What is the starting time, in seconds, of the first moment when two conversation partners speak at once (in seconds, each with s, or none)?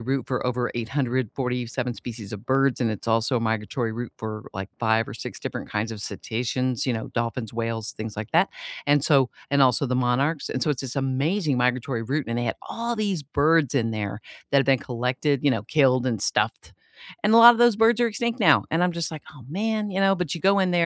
none